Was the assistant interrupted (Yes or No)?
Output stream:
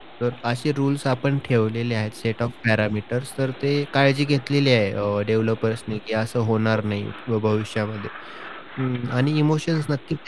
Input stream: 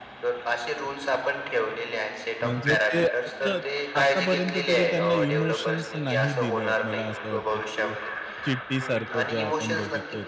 Yes